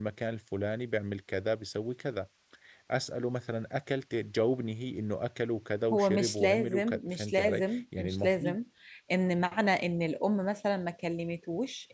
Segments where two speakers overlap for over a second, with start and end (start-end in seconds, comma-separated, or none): 5.9-8.6